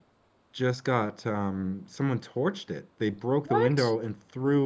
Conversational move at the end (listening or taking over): listening